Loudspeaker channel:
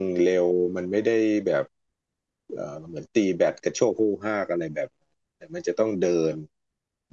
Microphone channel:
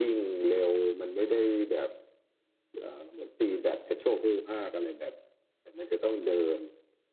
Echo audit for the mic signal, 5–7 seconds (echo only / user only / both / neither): echo only